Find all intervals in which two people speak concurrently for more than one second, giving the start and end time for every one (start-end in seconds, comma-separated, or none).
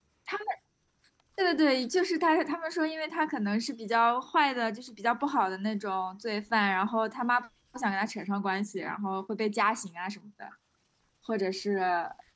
none